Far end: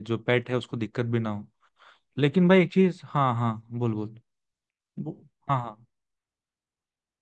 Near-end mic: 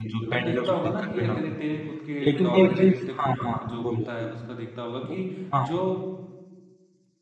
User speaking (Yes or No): Yes